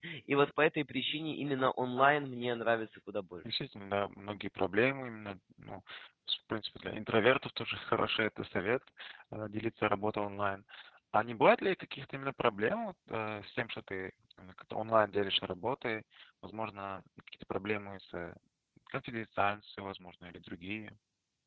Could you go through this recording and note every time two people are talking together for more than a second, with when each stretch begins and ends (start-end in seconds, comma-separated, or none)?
none